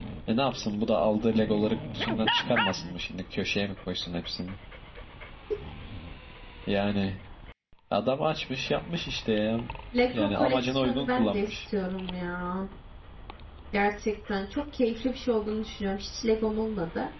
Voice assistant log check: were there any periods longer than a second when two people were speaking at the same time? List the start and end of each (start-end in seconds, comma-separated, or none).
10.2-11.6